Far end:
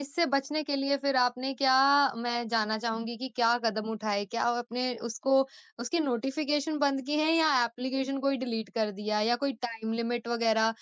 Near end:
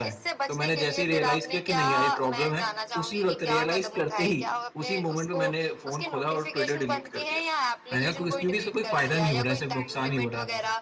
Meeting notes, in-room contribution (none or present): present